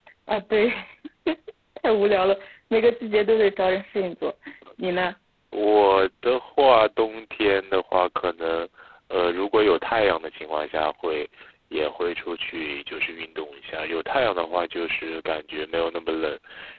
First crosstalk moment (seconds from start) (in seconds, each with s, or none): none